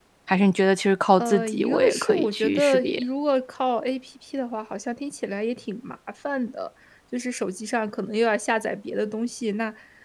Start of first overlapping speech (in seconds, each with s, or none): 1.2 s